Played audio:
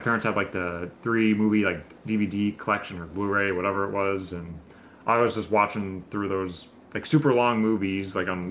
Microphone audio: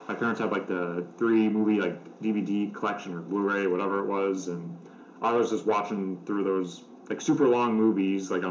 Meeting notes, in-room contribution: none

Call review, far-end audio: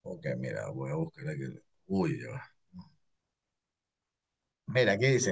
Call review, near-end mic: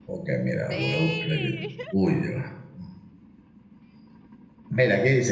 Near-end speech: present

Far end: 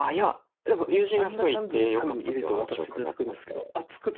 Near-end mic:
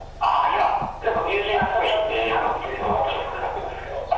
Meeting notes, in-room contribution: none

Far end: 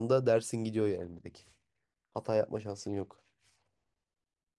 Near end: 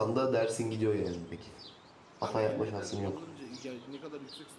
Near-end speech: present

